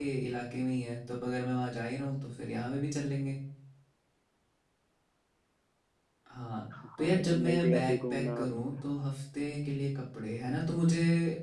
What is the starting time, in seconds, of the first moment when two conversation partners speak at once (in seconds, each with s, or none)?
7.0 s